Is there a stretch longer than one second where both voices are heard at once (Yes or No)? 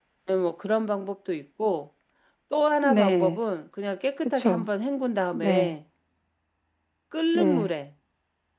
No